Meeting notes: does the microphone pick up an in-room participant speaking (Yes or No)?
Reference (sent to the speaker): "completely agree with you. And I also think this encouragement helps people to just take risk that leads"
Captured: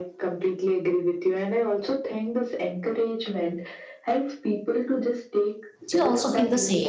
Yes